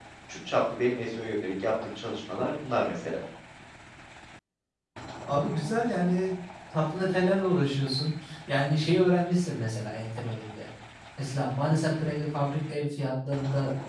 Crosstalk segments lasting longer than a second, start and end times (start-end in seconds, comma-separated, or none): none